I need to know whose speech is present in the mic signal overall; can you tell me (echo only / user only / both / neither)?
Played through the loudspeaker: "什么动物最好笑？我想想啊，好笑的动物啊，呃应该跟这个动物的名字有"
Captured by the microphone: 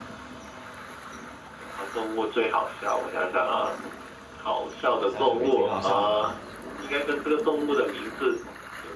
both